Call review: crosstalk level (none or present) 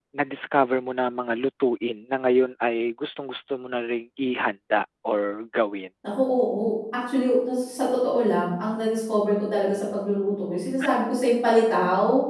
none